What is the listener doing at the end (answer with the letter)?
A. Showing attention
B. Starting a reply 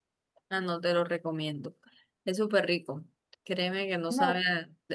A